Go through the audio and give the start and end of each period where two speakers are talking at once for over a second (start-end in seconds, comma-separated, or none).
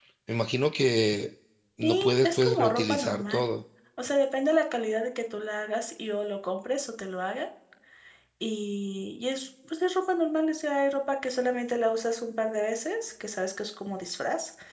1.8-3.4